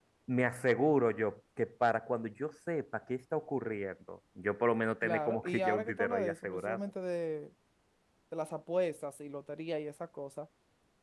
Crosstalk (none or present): present